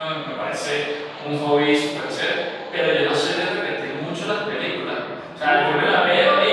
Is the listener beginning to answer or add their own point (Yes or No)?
No